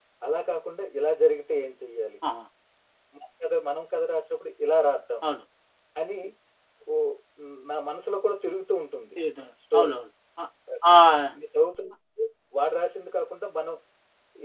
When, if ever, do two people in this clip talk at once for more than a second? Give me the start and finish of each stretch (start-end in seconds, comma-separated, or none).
none